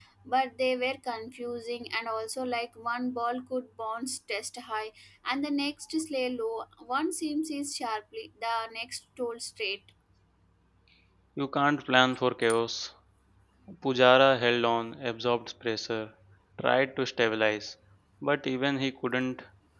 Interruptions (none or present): none